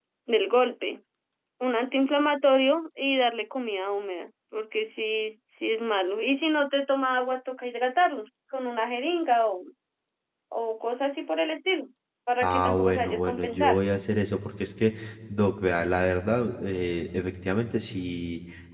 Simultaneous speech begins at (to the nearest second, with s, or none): 12 s